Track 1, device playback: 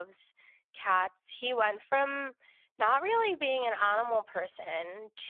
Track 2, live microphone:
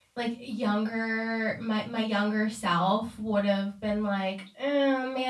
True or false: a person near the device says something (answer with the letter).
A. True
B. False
A